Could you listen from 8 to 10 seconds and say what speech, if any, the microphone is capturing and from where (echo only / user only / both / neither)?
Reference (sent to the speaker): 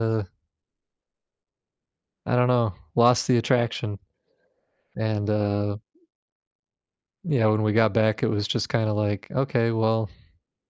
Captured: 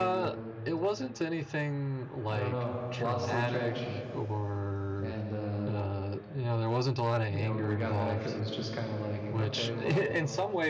both